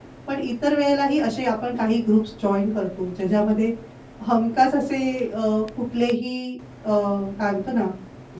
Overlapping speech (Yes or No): No